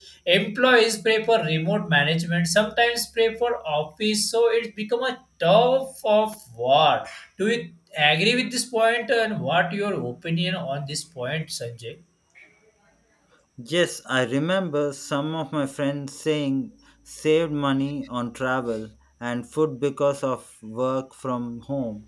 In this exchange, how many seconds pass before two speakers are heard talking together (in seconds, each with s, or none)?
none